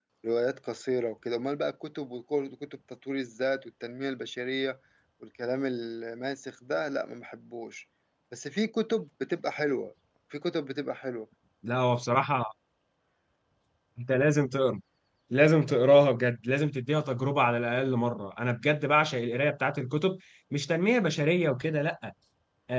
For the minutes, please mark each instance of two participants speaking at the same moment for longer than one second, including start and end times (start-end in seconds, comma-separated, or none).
none